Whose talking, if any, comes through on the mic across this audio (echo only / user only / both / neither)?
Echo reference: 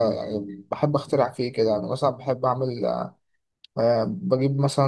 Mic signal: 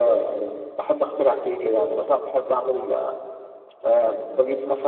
echo only